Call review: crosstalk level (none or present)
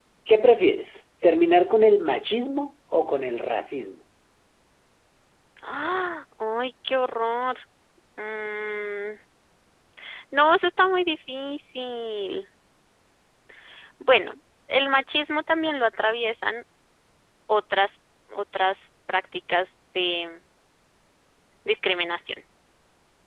none